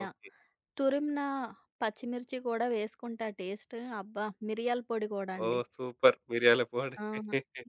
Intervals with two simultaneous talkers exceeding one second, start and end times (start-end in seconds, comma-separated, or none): none